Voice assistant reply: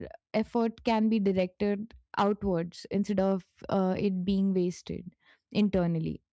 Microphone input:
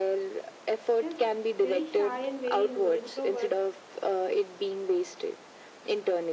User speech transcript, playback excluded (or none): just very shy and very invo- introvert